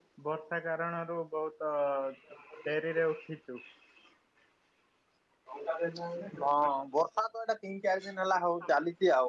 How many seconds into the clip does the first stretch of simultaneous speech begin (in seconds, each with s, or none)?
none